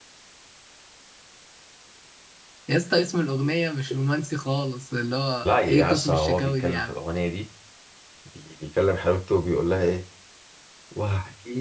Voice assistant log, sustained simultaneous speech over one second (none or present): present